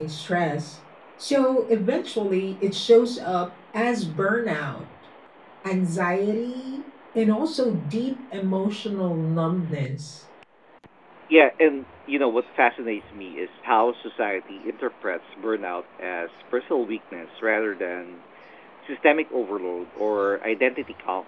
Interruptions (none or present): none